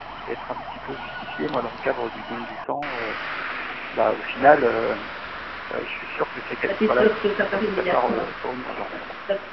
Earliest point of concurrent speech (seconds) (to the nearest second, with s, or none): 7 s